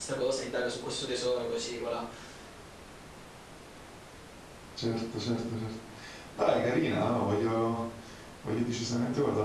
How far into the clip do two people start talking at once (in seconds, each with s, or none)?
none